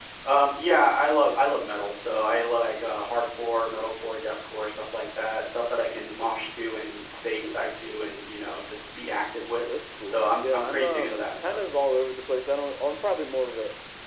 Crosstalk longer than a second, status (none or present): present